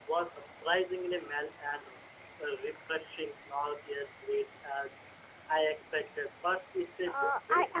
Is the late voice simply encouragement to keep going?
No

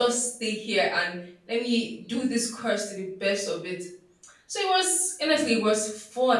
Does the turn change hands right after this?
No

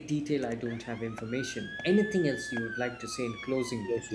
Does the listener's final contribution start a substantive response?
Yes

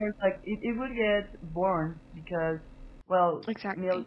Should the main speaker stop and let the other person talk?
No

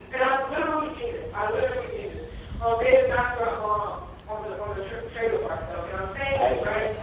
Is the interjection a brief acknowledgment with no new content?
Yes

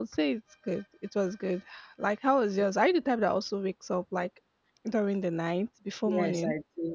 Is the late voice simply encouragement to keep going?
No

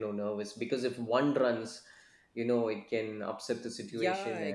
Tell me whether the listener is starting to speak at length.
Yes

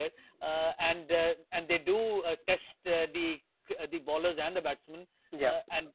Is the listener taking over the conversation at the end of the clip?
No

